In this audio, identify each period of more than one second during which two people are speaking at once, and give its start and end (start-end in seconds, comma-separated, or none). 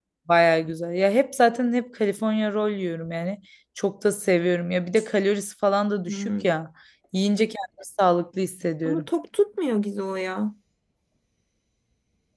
none